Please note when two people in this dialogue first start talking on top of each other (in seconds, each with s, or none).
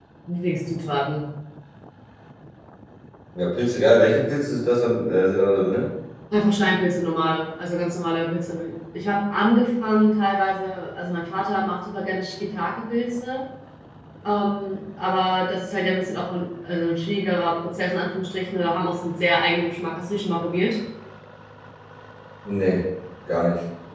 none